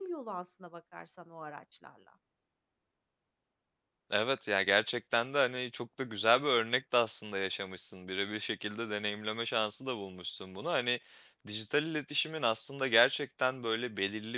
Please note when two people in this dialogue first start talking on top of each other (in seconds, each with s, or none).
none